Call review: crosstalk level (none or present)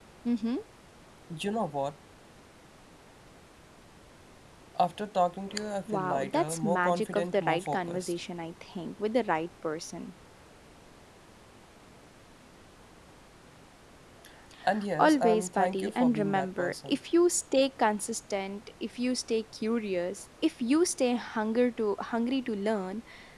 present